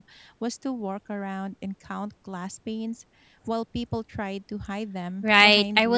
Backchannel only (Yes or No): No